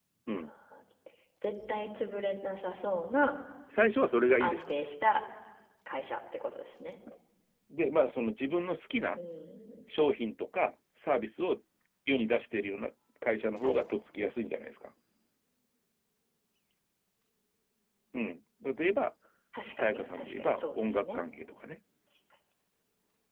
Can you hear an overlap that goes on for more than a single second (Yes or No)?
Yes